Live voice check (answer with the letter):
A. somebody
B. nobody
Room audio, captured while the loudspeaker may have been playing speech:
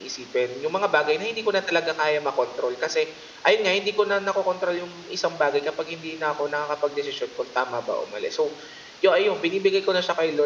A